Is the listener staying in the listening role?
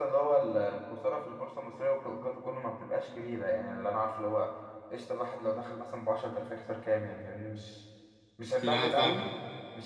Yes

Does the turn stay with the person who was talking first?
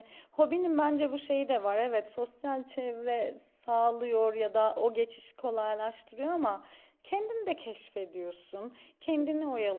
Yes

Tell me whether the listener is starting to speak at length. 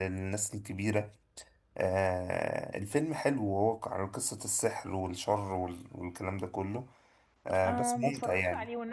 Yes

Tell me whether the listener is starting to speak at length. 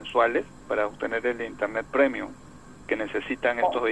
No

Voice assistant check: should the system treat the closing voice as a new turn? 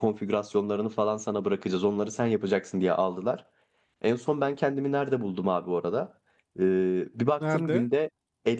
No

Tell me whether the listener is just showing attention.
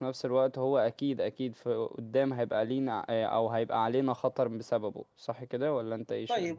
No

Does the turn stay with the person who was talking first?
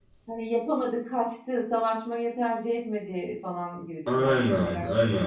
No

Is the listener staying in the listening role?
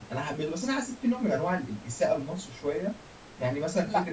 Yes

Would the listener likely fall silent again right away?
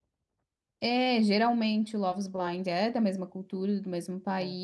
Yes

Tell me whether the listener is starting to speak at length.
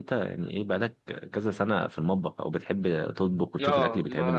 Yes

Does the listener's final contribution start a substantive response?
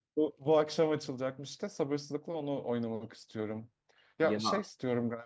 No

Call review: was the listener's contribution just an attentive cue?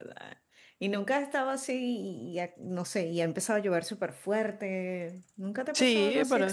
No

